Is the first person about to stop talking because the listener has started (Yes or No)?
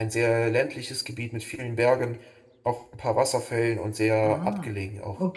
Yes